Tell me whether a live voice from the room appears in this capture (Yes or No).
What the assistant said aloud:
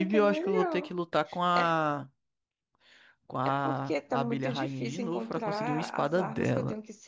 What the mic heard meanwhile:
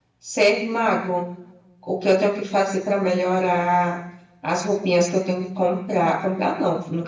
Yes